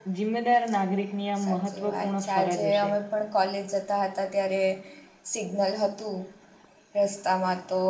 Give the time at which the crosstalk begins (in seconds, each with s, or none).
1.4 s